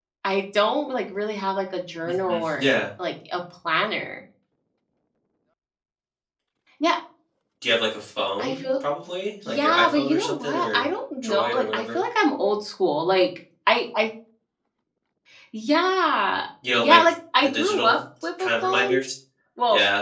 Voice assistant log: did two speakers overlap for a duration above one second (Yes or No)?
Yes